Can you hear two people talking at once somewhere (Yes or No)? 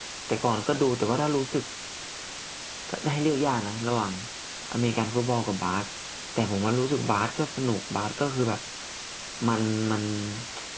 No